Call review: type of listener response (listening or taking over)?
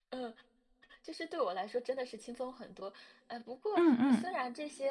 listening